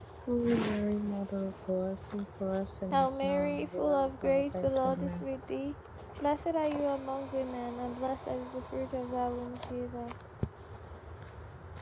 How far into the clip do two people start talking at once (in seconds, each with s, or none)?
2.9 s